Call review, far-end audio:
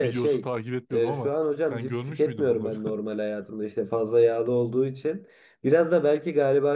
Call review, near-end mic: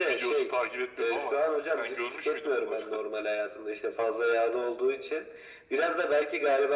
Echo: present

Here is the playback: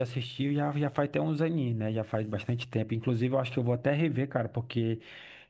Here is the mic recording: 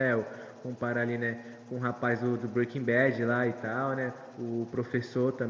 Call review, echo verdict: none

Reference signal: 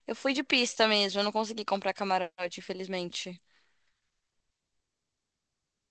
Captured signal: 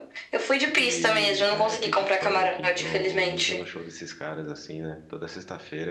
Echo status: present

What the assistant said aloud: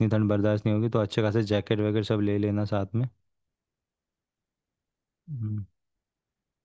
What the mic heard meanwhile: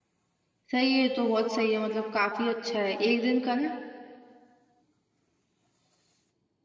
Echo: none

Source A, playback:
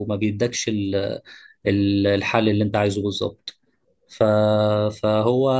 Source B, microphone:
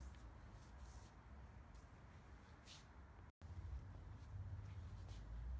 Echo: none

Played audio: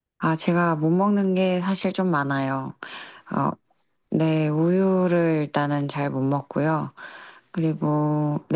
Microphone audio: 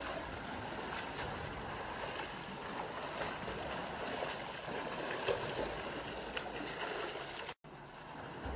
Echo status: none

